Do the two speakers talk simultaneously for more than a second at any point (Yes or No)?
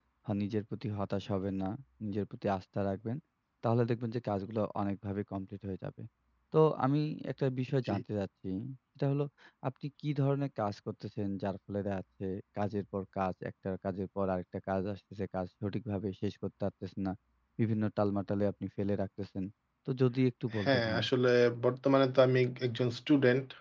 No